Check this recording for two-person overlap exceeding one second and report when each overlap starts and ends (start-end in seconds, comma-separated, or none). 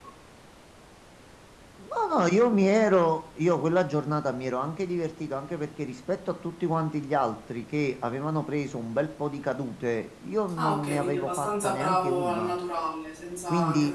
10.6-12.6